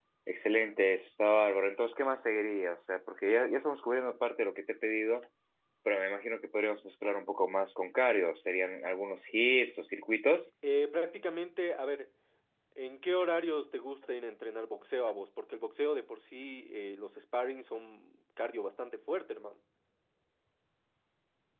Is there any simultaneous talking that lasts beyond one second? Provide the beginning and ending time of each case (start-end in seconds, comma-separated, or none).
none